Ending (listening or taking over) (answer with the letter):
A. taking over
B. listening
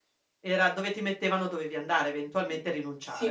A